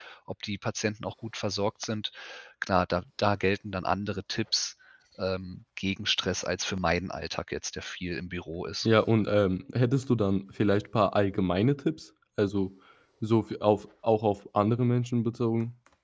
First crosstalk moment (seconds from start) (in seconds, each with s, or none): none